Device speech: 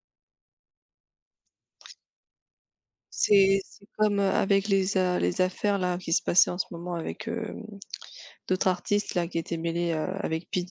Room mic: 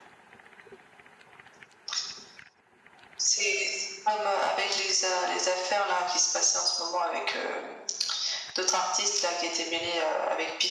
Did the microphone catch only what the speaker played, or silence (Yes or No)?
Yes